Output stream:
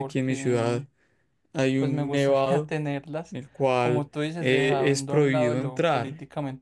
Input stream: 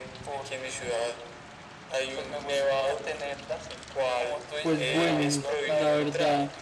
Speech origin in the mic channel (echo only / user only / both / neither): both